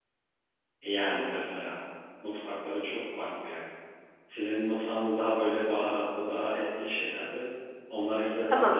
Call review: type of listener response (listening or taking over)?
listening